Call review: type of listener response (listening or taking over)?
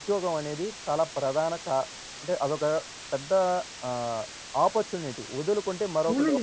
taking over